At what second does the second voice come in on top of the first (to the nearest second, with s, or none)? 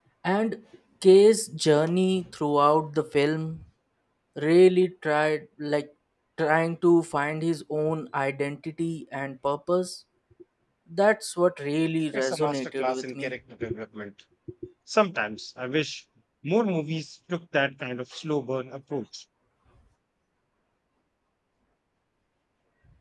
12 s